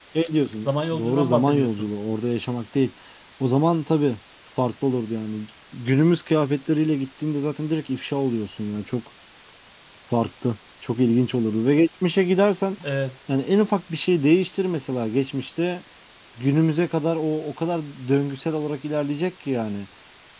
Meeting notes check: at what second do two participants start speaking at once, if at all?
1 s

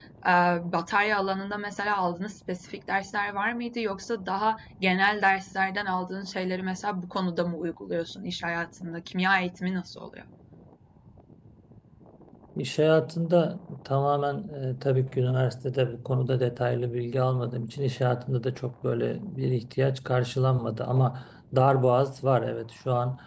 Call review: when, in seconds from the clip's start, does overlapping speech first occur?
none

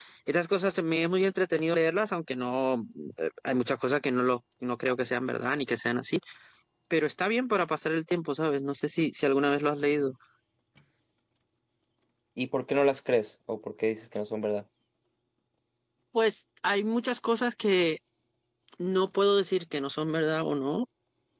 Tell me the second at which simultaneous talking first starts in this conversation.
none

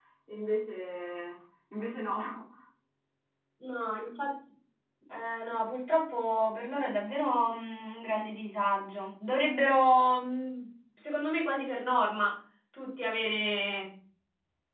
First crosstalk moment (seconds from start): none

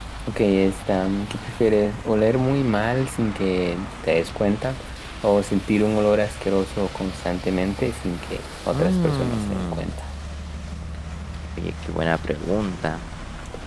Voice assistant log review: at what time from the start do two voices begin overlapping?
9 s

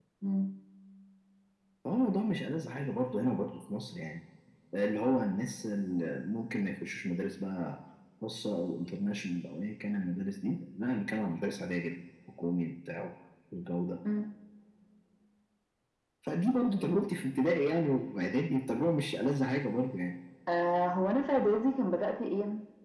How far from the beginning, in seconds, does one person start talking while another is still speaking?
none

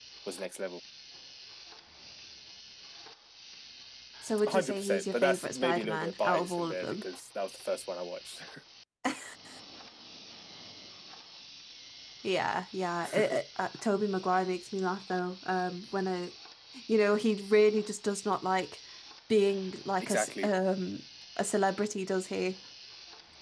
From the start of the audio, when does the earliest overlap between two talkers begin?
4 s

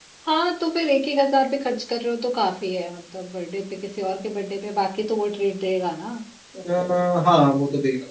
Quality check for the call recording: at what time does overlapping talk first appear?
none

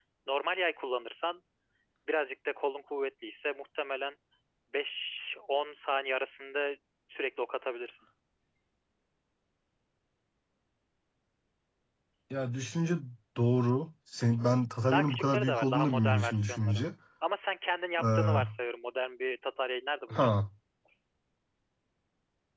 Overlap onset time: 15 s

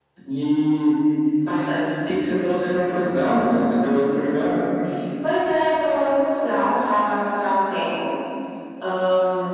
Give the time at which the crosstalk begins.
none

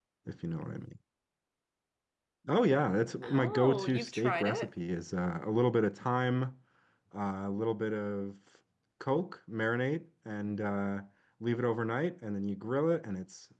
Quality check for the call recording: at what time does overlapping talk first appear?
3 s

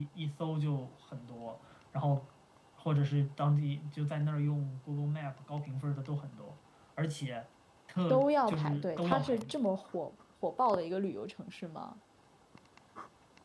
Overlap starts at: 8 s

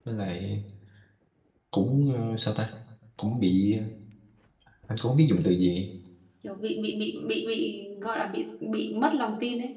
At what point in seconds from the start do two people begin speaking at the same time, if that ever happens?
none

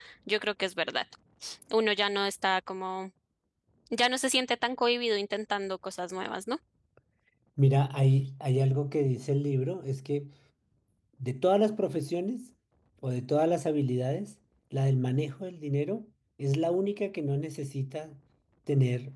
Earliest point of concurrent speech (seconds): none

